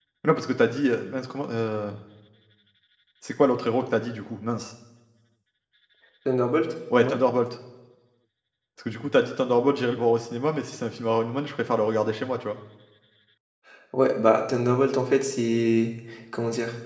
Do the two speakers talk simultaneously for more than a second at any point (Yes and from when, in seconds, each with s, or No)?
No